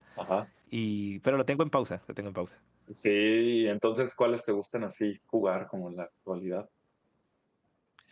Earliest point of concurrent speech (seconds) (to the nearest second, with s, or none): none